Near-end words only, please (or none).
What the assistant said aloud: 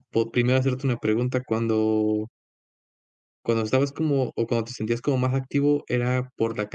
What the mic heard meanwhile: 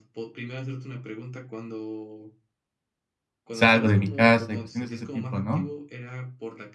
salgo de mi casa y cuestiones de ese tipo, ¿no?